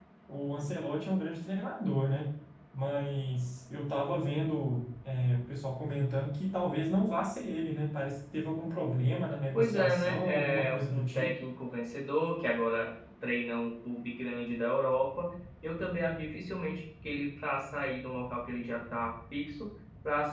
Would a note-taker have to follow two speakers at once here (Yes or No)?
Yes